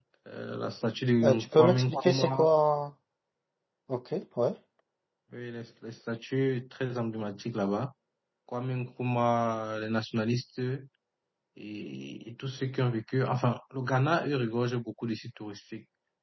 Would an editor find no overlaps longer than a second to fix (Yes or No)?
No